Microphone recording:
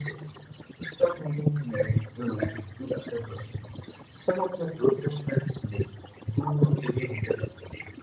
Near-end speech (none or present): none